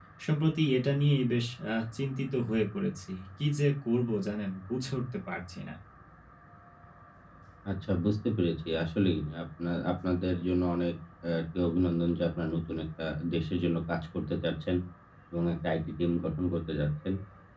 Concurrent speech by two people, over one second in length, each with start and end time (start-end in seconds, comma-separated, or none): none